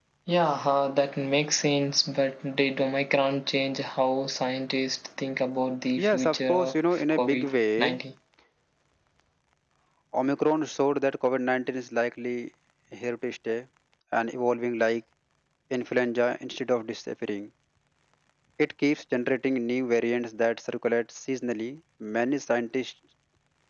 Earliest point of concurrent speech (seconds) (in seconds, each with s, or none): 6.0 s